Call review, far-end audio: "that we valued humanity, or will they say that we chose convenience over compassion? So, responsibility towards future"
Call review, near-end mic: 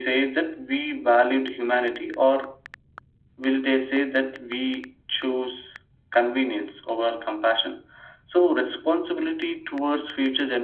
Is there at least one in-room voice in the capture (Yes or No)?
No